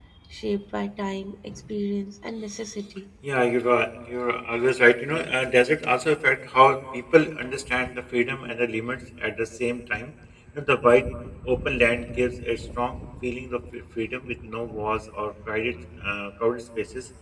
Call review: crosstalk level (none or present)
none